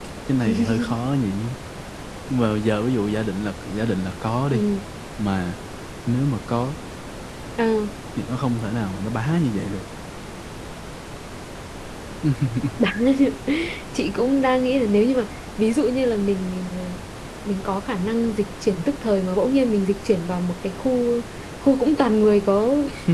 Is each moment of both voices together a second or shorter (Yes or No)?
Yes